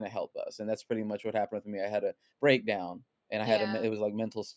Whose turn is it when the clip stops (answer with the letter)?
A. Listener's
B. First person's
B